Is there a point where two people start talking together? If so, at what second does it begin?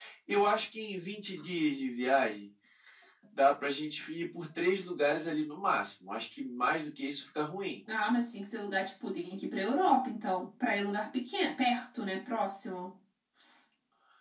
none

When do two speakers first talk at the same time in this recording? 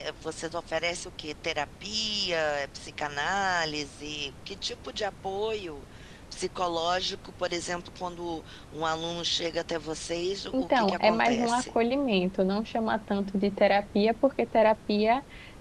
10.5 s

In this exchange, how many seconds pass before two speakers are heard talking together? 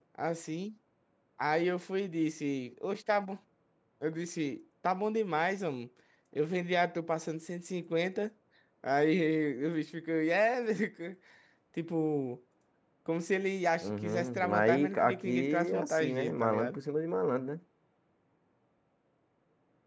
13.8 s

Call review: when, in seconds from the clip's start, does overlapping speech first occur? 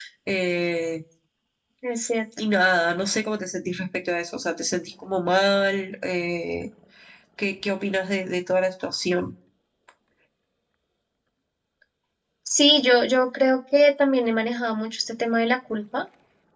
none

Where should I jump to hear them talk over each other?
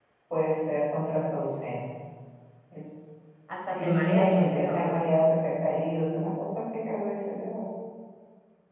3.7 s

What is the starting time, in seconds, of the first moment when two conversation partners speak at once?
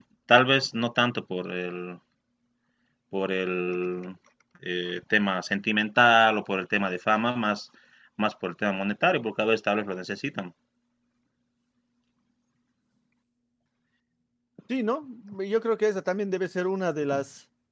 none

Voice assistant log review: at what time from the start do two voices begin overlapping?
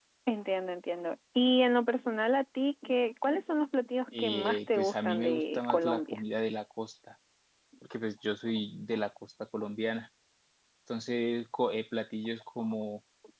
4.1 s

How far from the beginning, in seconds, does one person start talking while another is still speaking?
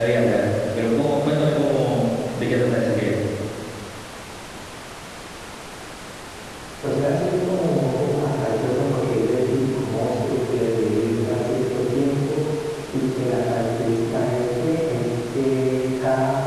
none

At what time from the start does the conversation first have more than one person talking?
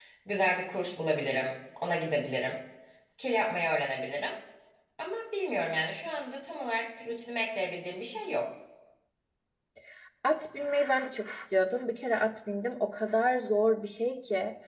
none

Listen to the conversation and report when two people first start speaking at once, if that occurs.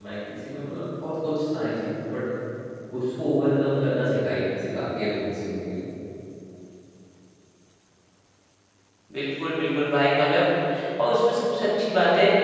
none

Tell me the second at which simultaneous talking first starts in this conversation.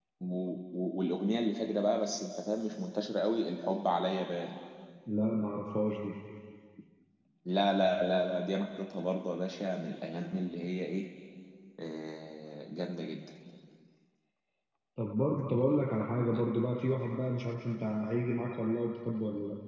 none

